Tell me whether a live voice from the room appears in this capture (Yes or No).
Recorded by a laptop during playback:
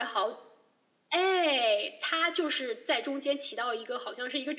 No